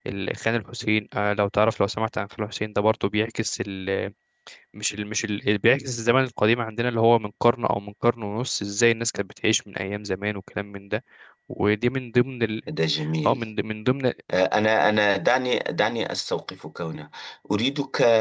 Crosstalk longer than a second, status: none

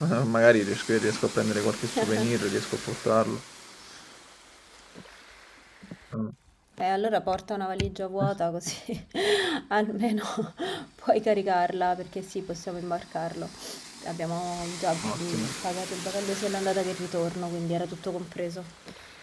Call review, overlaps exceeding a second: none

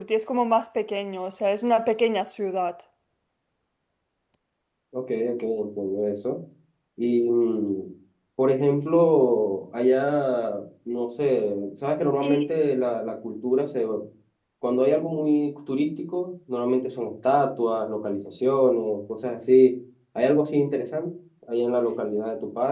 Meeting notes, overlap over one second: none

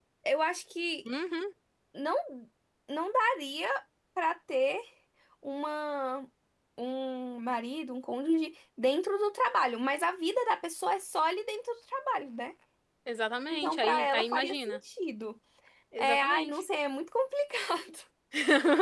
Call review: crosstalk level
present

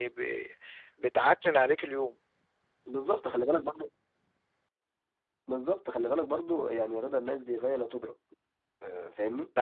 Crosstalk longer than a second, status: none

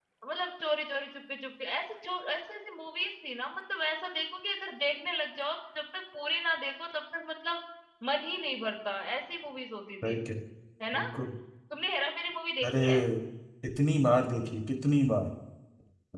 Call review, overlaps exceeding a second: none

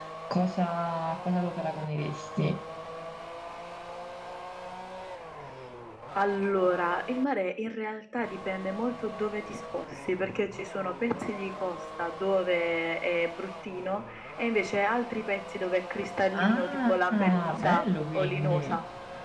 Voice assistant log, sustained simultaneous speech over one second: present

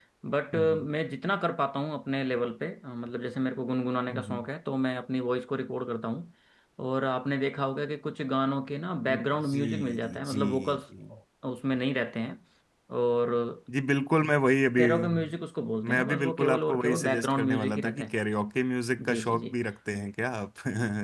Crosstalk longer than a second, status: present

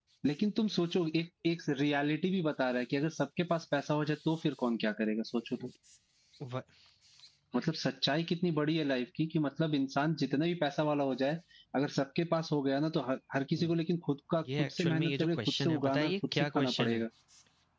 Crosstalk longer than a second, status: present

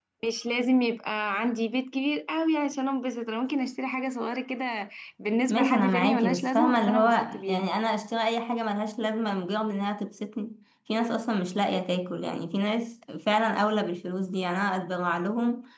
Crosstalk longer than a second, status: present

